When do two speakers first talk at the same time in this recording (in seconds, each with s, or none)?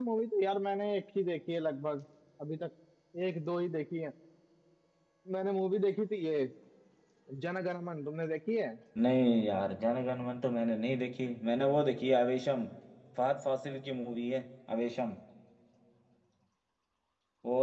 none